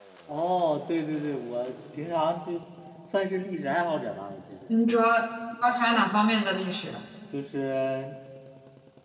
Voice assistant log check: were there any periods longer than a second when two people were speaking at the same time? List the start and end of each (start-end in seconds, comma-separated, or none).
none